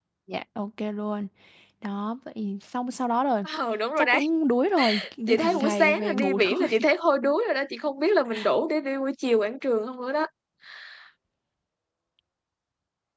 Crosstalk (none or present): present